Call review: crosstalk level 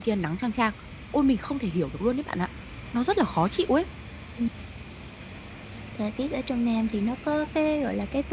none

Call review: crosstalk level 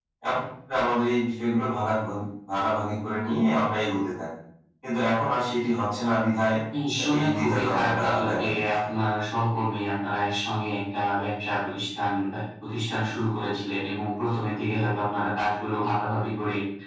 present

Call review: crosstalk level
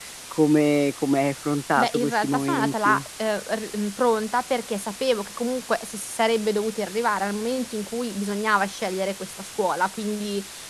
present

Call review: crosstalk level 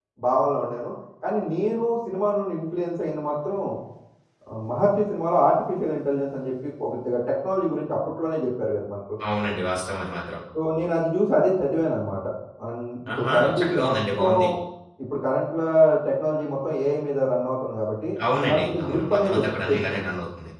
present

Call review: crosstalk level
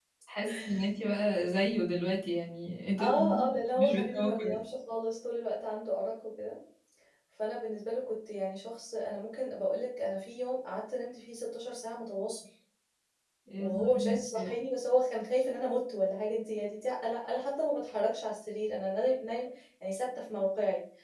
present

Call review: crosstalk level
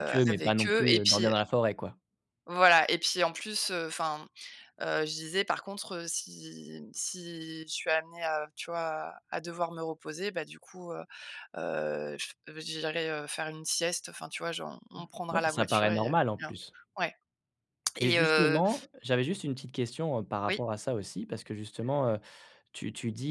present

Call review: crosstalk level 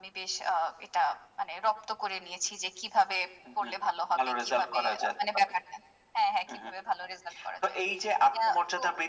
present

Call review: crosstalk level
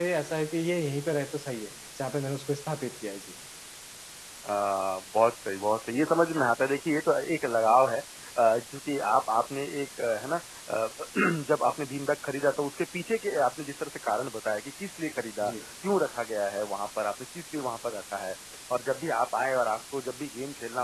none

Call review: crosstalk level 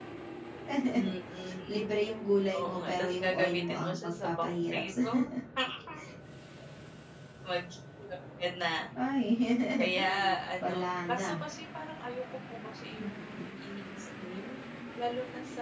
present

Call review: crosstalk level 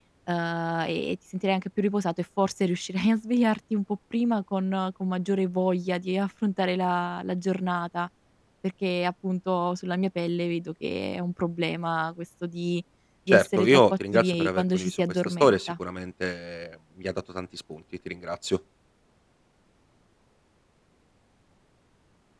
present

